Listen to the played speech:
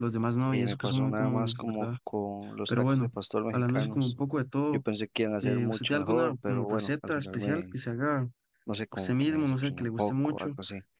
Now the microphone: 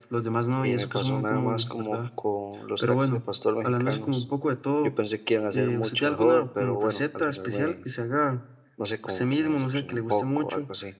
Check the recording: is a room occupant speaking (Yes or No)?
No